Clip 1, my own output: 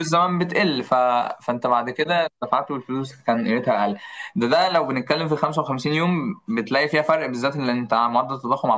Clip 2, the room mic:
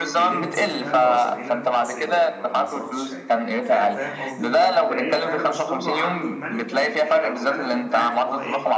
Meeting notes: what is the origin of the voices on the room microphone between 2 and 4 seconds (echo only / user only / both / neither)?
both